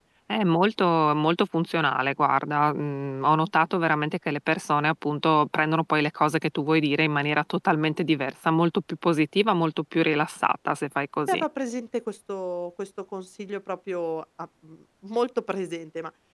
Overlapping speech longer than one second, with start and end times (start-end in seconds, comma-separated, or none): none